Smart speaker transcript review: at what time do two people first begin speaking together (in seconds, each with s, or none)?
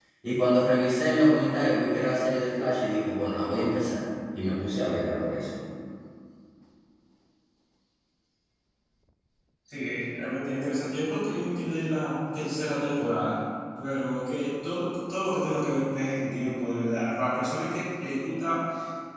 none